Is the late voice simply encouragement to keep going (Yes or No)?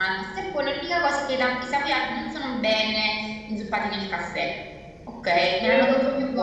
No